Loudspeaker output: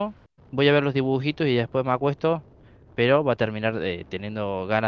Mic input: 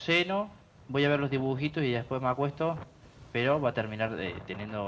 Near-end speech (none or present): none